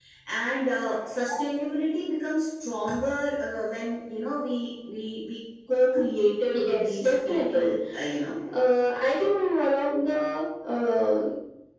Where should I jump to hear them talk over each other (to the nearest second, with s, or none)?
6 s